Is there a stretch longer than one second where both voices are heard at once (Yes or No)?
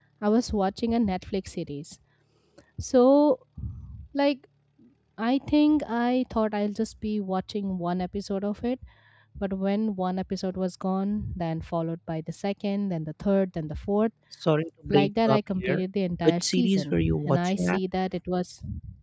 Yes